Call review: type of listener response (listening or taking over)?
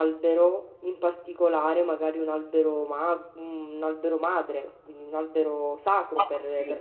taking over